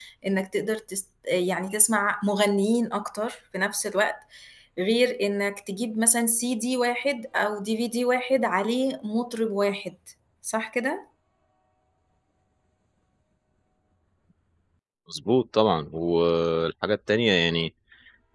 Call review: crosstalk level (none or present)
none